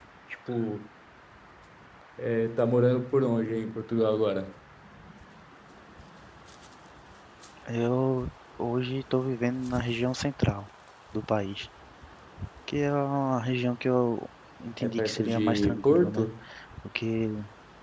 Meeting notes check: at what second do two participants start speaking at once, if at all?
14.8 s

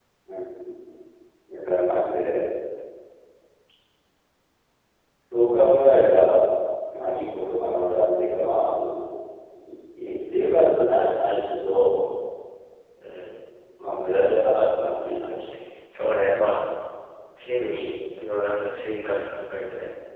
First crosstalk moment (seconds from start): none

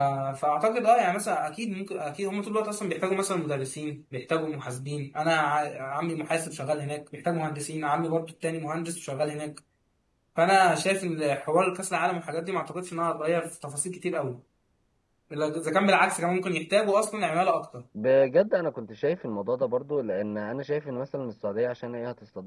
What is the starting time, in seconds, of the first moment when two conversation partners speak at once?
none

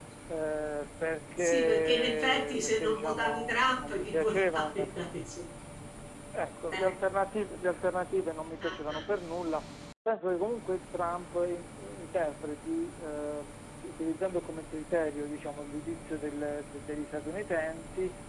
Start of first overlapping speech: 1.4 s

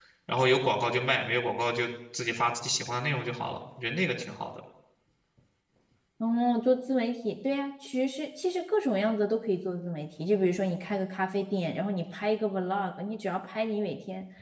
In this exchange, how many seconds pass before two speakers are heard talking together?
none

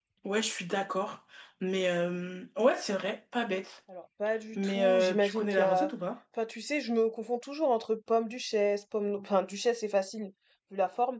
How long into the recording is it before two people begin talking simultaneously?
4.5 s

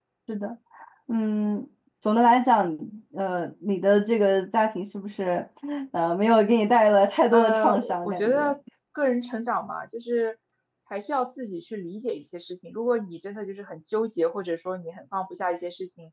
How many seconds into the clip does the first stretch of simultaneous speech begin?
7.3 s

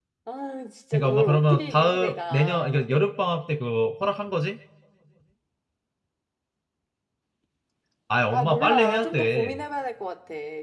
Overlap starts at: 0.9 s

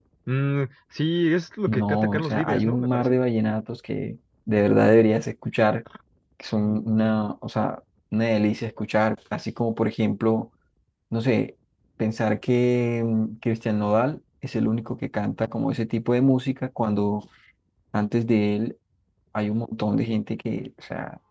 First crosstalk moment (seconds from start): 1.7 s

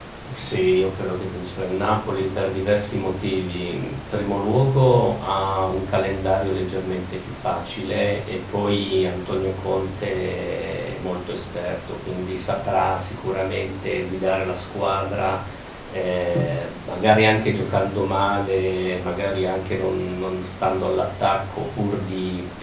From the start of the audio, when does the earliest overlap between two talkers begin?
none

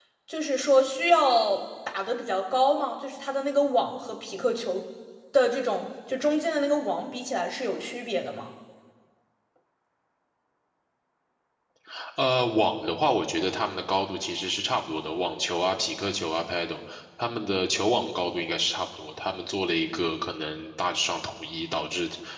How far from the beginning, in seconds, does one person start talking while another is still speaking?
none

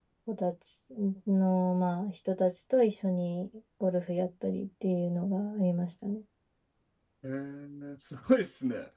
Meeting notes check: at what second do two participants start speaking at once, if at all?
none

